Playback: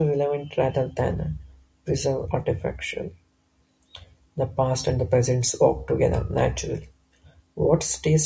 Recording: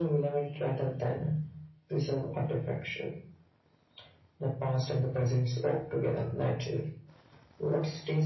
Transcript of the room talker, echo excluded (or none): none